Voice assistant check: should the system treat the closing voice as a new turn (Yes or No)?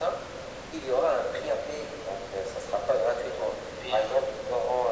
No